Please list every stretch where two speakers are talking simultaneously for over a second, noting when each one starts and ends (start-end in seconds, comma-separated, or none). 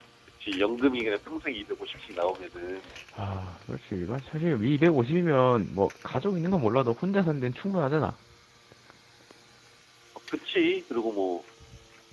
none